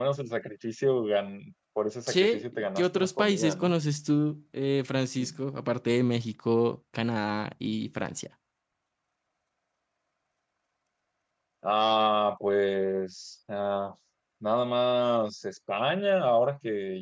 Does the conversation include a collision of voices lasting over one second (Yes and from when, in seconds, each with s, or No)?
Yes, from 2.1 s